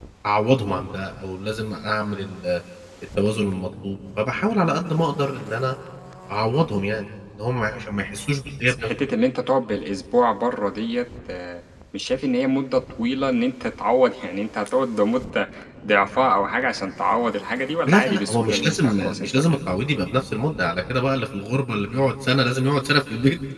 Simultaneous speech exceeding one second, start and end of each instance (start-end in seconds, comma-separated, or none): 17.9-19.6